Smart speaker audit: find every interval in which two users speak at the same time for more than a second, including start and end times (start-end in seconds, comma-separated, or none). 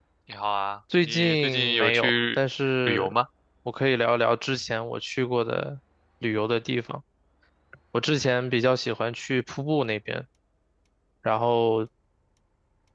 1.1-2.4